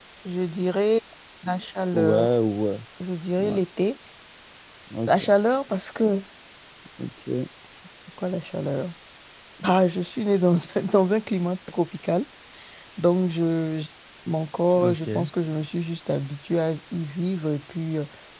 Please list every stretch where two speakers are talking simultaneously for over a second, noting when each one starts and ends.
none

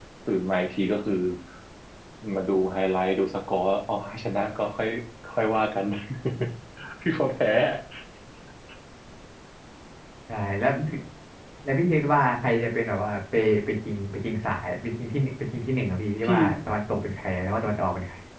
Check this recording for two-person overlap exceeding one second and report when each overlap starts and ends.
none

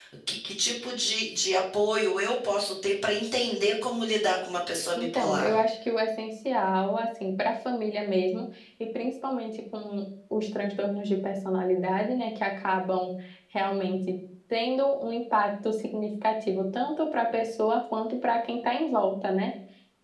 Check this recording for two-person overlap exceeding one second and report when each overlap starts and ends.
none

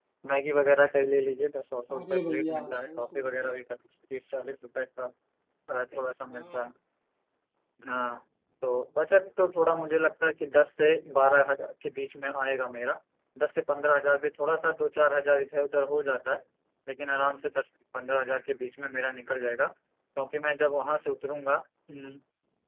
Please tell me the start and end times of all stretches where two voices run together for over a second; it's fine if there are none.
2.0-3.5

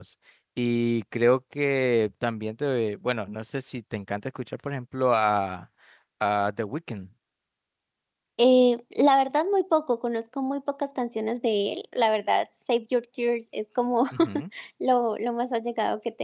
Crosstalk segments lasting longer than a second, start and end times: none

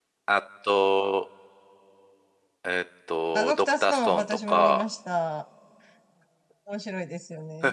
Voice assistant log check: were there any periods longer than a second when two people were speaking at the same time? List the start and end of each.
3.3-4.8

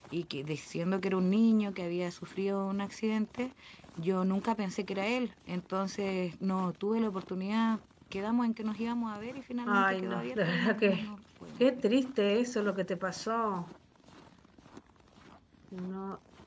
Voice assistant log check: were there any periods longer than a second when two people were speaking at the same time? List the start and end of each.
9.7-11.0

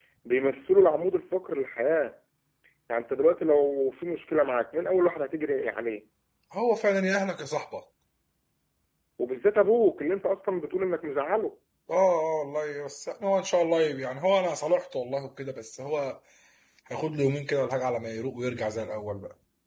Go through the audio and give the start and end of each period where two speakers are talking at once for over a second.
none

